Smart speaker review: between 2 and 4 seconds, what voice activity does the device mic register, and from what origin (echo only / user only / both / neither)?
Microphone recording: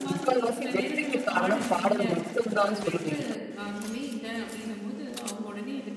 both